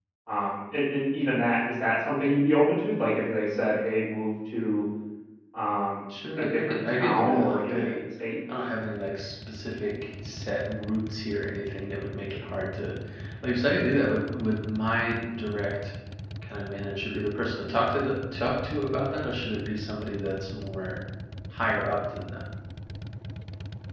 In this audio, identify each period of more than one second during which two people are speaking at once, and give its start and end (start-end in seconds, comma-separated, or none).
6.4-7.9